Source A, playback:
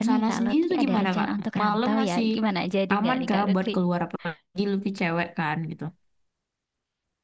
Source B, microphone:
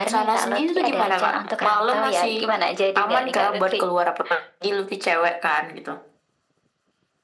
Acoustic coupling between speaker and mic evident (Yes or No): Yes